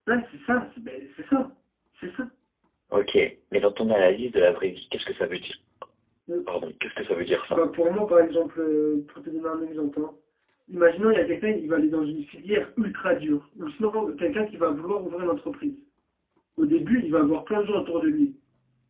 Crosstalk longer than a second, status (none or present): none